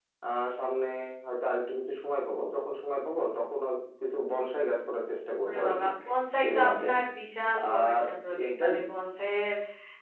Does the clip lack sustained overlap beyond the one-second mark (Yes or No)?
Yes